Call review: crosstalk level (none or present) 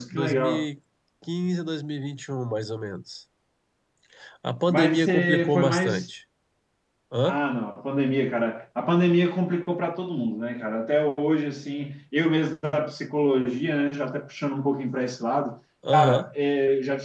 present